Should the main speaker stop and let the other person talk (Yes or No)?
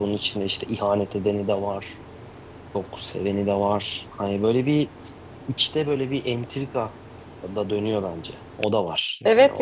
Yes